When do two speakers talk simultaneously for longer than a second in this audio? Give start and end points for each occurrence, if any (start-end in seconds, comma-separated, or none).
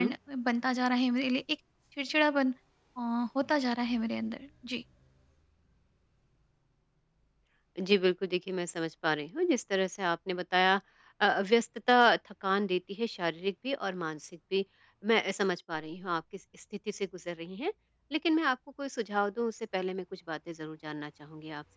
none